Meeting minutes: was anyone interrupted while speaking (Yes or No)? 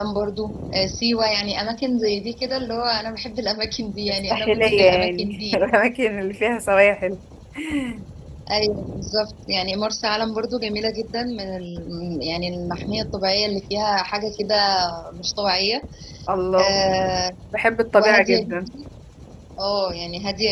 Yes